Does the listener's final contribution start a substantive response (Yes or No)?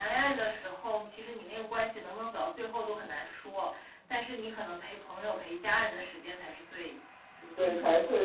Yes